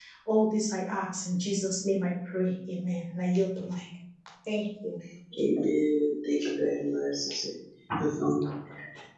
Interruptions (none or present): none